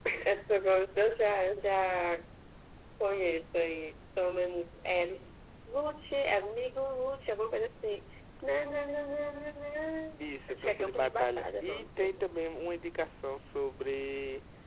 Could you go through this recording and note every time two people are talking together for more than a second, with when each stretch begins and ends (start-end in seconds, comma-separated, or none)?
10.2-12.1